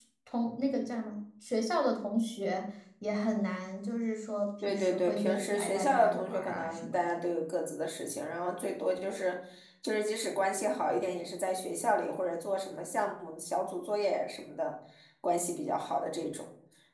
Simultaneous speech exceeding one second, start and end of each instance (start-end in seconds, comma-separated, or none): 4.7-7.0